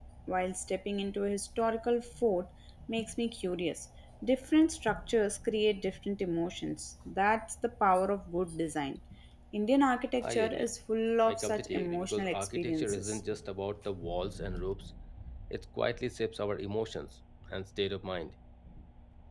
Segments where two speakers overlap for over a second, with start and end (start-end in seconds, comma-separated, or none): 11.2-13.2